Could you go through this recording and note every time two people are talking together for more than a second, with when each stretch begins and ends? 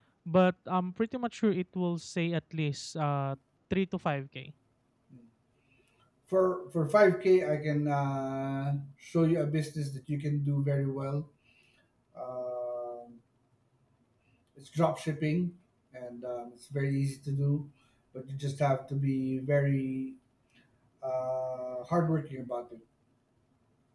none

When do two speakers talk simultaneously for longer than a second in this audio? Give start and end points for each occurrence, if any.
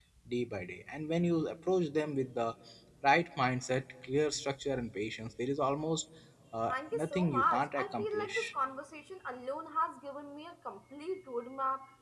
6.7-8.5

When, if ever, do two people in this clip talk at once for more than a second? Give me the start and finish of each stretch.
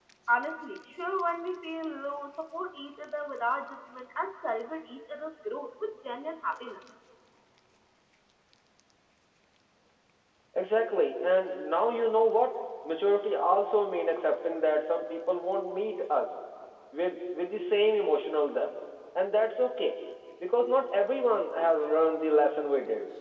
none

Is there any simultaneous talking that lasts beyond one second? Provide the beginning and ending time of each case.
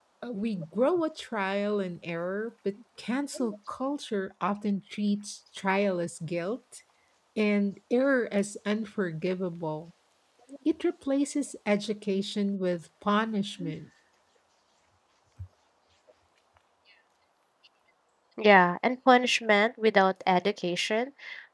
none

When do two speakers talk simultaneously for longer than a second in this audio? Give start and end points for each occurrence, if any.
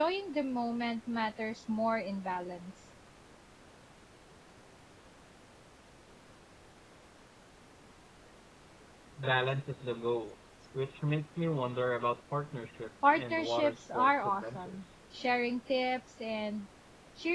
13.0-14.8

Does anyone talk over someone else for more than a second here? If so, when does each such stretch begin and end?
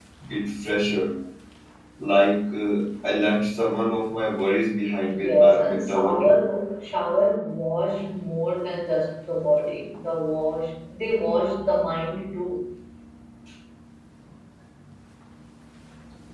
5.0-6.4

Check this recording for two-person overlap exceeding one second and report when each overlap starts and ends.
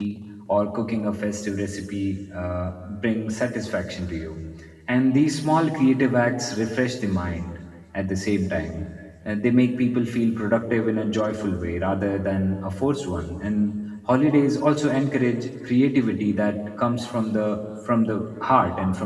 none

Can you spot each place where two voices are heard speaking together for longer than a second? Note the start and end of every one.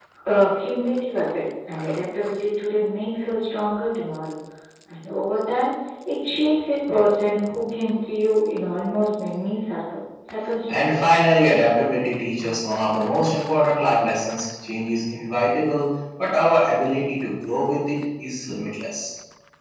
none

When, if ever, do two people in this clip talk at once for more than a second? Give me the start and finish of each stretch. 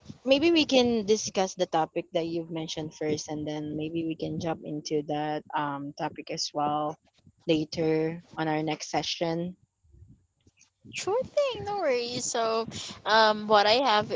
none

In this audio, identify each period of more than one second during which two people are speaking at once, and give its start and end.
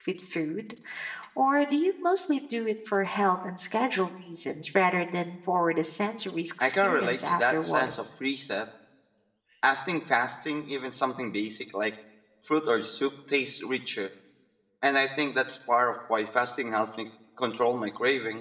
6.6-7.9

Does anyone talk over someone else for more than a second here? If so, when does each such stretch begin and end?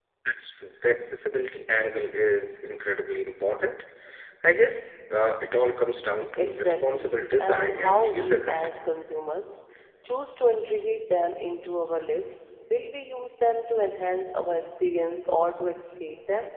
6.4-8.6

